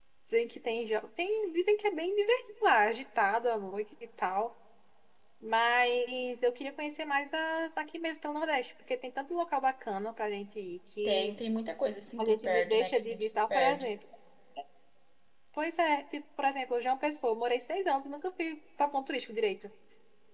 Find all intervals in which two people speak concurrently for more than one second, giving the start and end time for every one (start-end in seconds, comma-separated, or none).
12.2-13.9